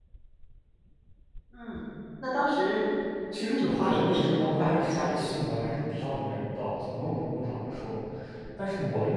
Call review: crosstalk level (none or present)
present